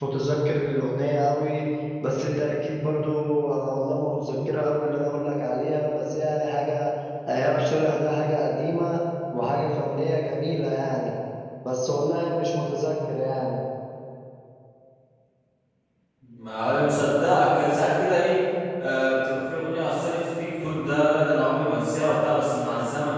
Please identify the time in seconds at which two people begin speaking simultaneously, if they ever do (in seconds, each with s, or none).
none